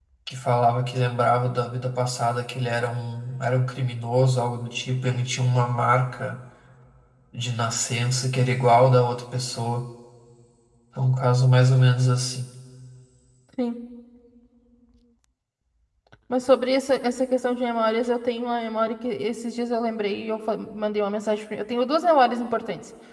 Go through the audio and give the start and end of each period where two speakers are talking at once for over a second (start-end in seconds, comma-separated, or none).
none